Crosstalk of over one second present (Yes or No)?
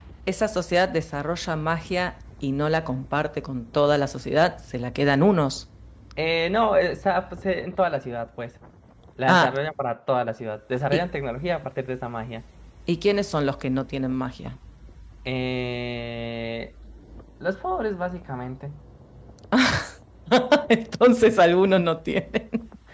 No